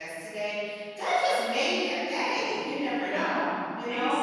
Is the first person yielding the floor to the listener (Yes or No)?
Yes